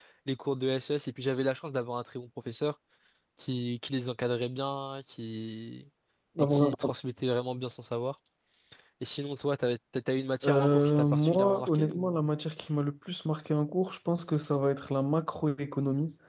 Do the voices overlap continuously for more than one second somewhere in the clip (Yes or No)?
Yes